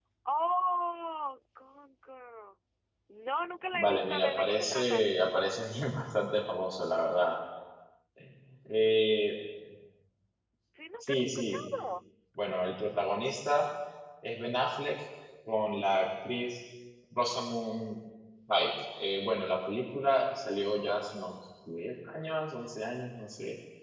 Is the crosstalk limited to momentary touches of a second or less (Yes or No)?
No